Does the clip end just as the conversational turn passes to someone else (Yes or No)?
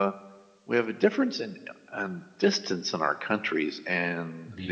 No